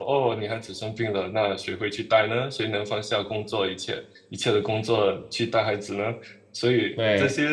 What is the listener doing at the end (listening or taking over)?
listening